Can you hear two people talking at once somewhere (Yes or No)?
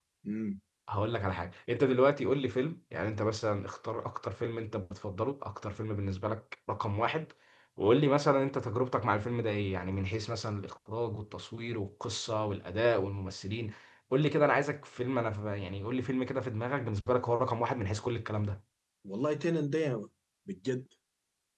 No